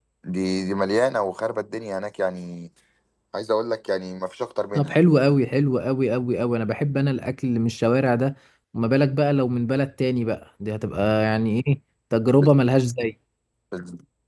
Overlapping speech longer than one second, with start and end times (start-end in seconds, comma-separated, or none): none